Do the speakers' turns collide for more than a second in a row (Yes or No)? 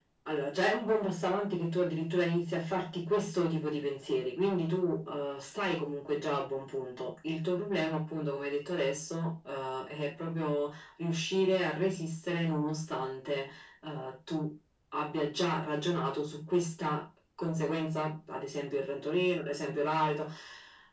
No